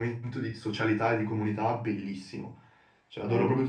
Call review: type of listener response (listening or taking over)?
taking over